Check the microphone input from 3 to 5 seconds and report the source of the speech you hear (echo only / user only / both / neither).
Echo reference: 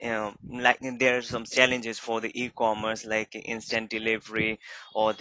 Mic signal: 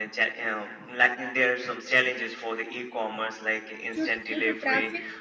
both